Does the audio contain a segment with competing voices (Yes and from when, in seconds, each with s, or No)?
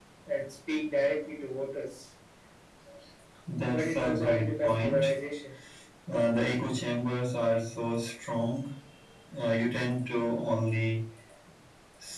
Yes, from 3.7 s